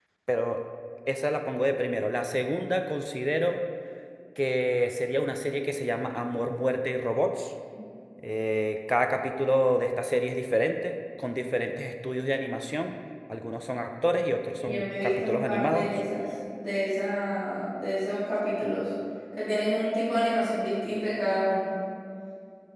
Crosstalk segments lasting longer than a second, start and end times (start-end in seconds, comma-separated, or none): 14.6-15.9